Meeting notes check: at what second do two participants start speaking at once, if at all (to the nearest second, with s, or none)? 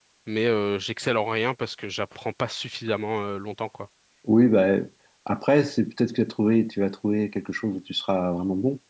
none